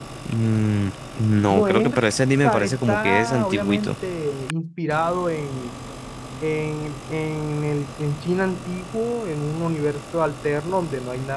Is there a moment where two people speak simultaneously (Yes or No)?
Yes